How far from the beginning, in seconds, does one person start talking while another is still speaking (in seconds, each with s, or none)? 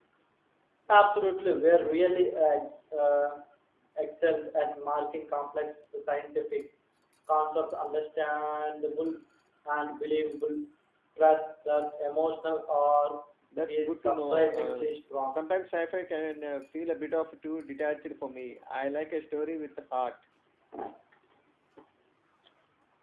13.7 s